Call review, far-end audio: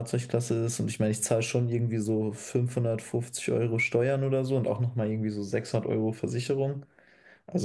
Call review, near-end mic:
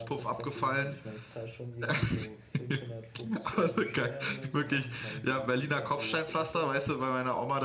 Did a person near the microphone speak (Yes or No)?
Yes